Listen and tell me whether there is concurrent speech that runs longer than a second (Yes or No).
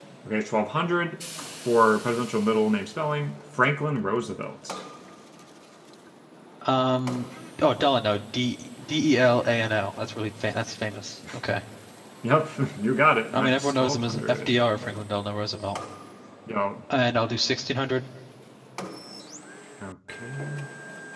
Yes